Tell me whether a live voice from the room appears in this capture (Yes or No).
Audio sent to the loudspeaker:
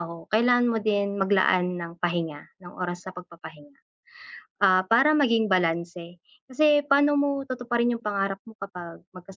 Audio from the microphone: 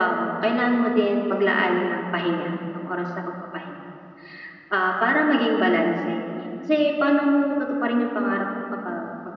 No